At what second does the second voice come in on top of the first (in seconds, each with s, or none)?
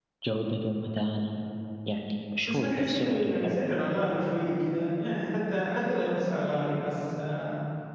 2.4 s